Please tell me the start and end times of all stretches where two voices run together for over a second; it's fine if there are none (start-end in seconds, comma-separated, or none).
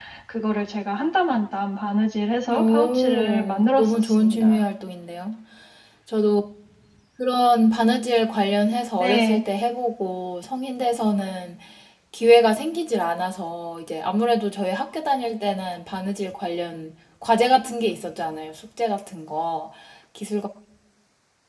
2.5-4.6